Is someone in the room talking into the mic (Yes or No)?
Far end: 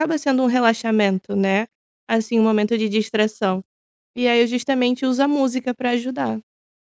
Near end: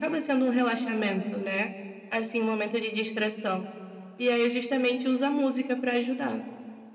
No